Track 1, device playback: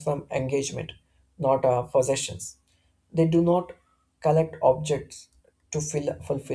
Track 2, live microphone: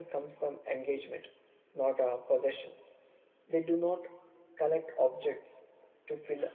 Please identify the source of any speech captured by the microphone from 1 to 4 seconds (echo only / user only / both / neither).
echo only